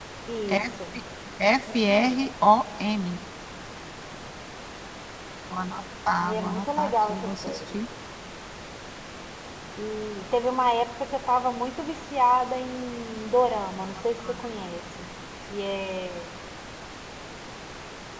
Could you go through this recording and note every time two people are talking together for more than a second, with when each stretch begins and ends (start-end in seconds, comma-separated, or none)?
6.2-7.8